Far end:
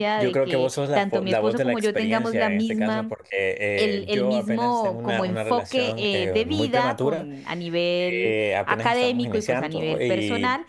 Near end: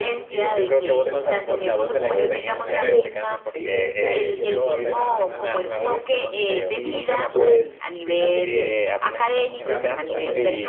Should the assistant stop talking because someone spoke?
Yes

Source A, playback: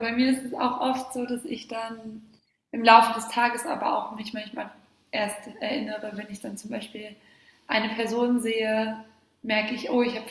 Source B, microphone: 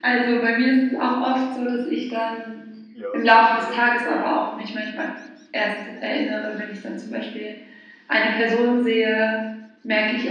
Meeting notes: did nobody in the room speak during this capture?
No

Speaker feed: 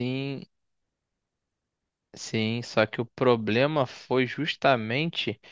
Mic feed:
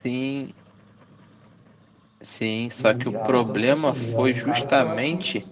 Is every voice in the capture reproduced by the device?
No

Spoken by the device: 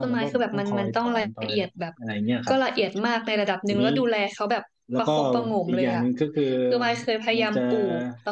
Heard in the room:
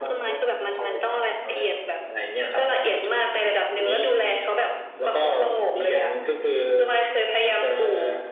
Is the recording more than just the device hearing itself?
No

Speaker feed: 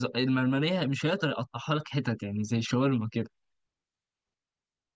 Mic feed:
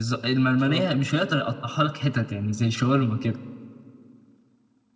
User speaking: Yes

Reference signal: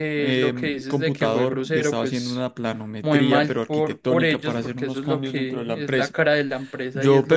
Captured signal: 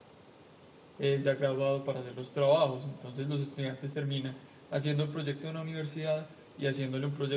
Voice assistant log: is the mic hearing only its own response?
No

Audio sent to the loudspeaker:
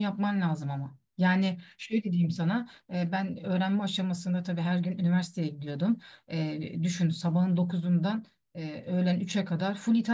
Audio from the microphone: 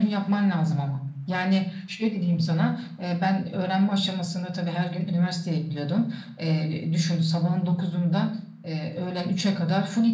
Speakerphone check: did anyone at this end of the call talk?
No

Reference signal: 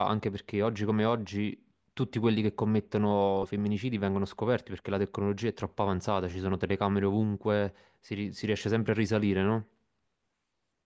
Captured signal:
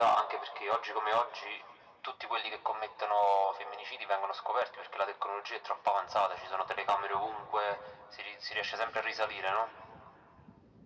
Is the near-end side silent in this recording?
Yes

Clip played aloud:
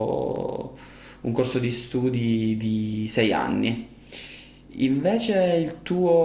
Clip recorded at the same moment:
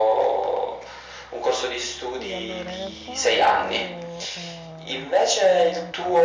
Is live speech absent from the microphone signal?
No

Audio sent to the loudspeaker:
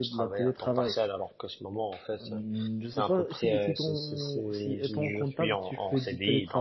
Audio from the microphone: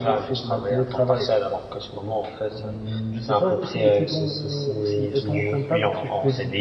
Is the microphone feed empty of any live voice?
Yes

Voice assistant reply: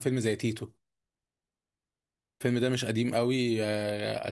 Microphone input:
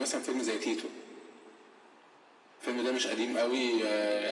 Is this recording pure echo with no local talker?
Yes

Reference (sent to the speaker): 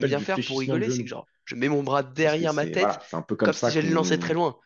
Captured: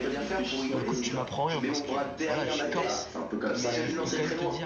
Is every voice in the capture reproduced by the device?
No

